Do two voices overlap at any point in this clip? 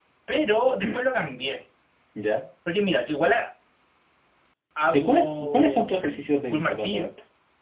Yes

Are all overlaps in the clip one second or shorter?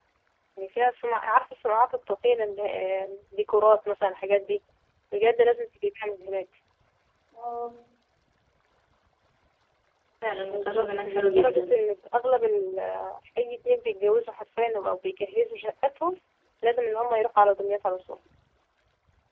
No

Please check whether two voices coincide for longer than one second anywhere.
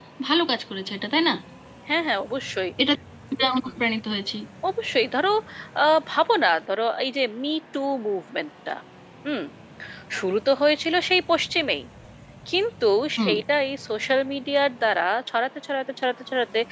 No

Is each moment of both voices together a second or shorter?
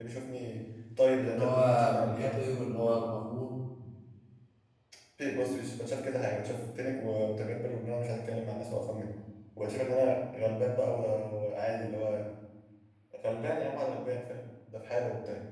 No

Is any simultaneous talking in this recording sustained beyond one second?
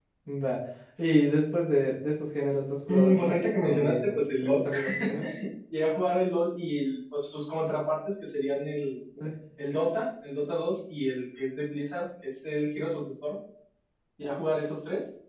Yes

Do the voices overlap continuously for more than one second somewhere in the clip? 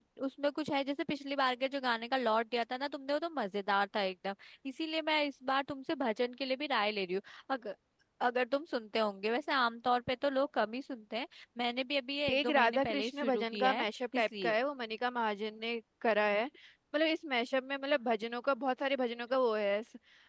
Yes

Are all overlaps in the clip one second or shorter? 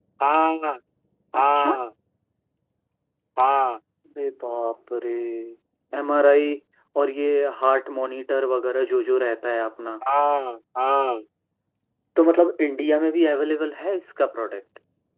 Yes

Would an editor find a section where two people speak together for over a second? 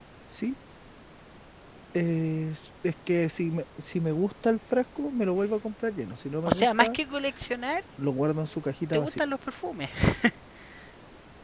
No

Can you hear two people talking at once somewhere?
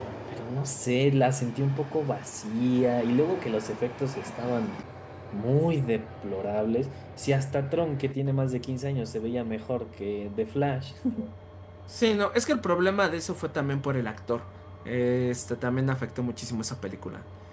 No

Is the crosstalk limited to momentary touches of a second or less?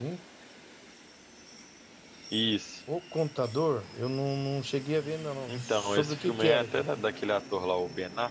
No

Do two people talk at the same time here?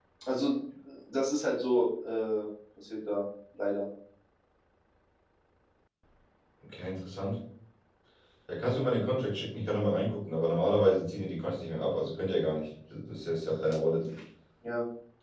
No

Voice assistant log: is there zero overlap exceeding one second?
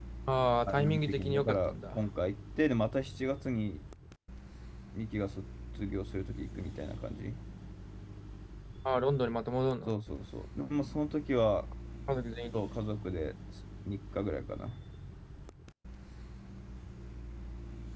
No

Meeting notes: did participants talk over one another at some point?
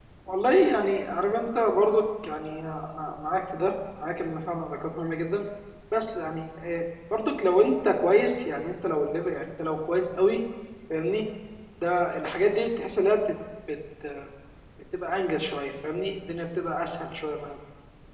No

